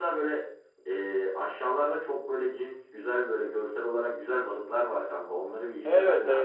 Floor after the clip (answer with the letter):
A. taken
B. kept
A